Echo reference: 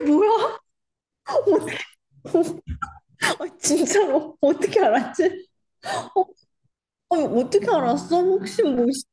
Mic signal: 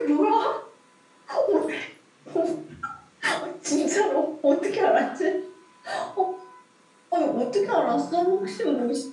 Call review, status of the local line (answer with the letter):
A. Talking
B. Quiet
B